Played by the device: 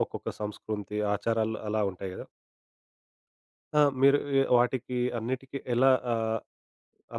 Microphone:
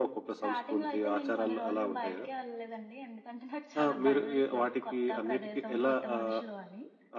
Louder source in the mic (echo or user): echo